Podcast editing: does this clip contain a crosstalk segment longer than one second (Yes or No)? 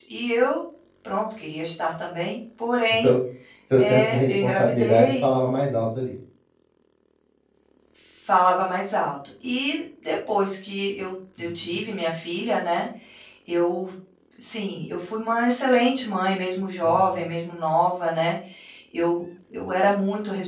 Yes